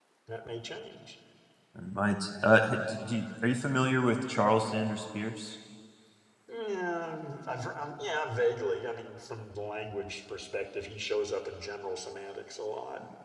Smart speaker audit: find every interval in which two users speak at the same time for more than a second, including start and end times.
none

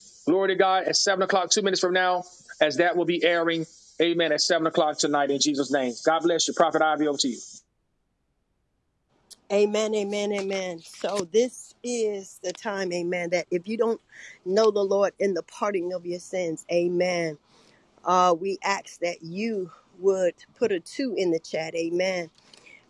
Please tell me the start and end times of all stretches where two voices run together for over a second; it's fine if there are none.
none

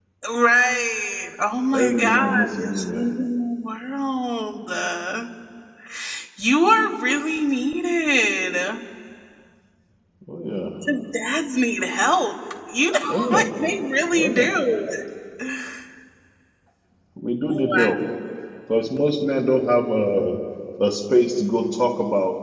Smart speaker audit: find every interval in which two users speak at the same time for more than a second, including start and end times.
1.7-3.0

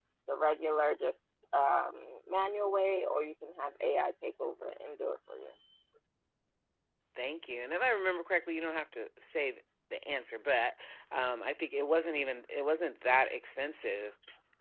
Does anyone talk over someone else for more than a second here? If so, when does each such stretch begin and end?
none

